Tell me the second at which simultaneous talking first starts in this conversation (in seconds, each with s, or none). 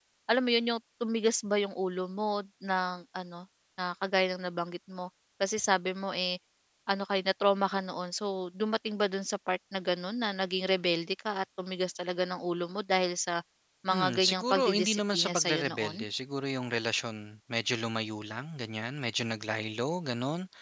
13.9 s